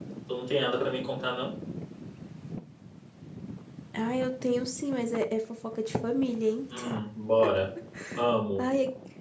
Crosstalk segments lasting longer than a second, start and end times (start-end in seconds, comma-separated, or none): none